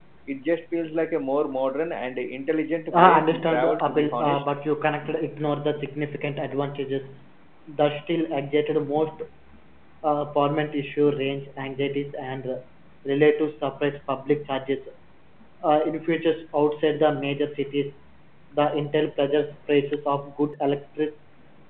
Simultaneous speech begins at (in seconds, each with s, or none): 2.9 s